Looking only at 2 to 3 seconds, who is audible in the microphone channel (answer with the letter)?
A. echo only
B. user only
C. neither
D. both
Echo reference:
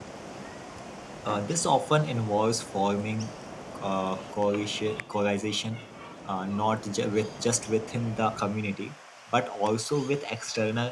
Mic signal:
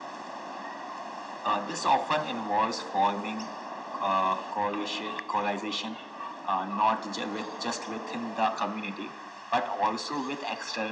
A